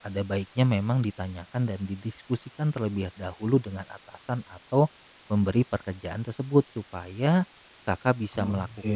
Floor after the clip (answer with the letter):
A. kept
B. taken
A